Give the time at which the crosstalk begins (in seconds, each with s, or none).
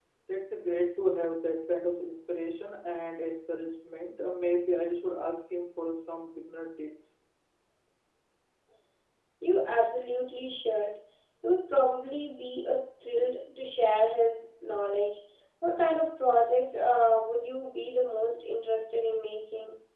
none